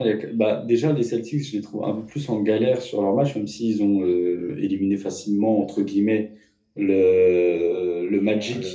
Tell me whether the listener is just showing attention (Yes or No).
Yes